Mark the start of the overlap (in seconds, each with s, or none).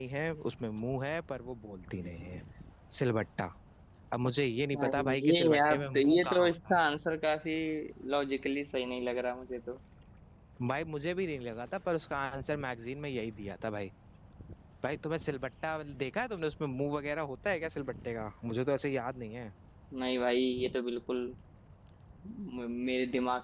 4.7 s